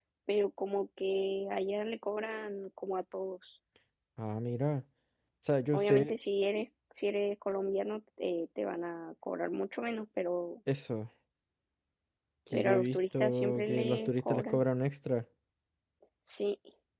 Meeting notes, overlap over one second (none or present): present